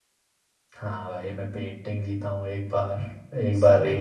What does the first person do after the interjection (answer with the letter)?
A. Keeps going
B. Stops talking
A